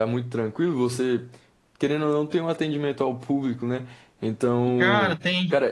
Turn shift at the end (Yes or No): No